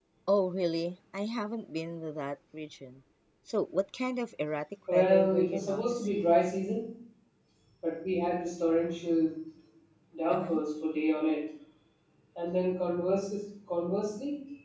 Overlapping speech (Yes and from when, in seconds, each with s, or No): Yes, from 4.9 s